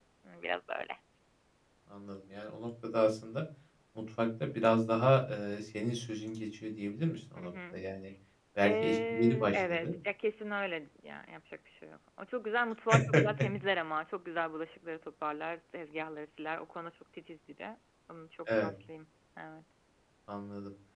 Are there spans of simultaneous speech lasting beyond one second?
Yes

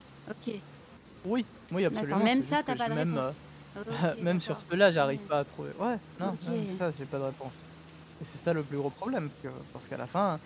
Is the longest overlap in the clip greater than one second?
Yes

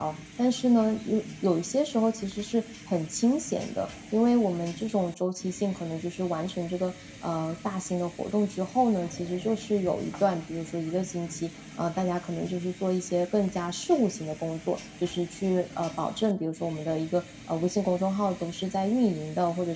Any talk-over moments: No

